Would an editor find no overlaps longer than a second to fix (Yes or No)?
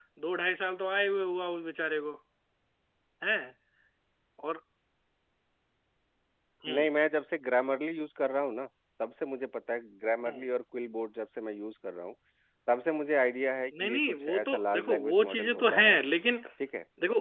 No